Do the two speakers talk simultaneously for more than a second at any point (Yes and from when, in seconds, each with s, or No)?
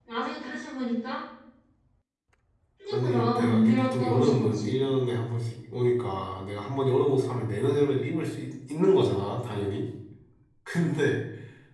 Yes, from 2.9 s